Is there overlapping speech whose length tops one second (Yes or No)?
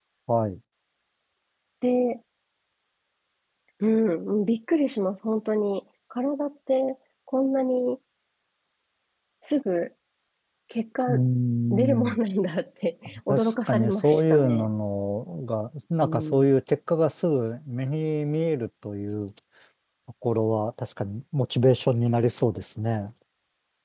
Yes